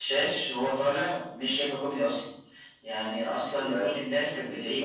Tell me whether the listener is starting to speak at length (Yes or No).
No